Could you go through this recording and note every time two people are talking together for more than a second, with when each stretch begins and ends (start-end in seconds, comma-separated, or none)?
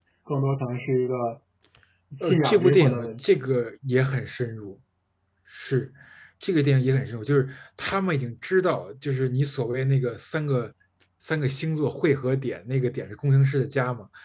2.2-3.5